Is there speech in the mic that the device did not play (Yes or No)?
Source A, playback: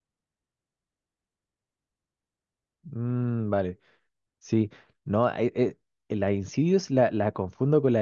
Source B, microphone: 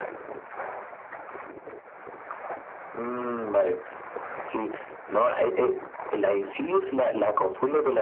No